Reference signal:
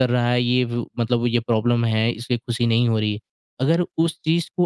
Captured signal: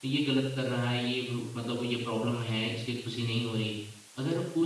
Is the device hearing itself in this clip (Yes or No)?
Yes